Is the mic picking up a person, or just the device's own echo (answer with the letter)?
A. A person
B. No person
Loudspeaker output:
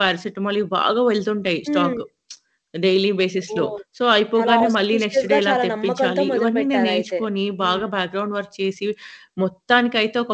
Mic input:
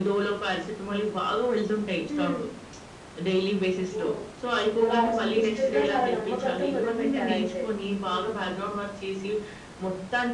B